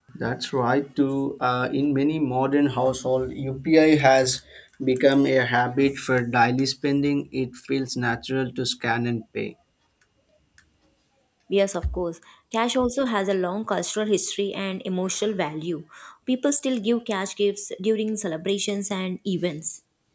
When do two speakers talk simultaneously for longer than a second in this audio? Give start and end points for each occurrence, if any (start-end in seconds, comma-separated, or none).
none